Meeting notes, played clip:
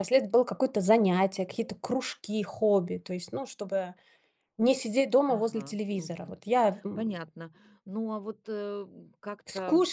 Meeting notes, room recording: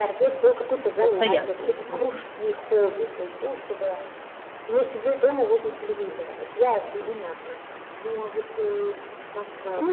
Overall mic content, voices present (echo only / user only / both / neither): both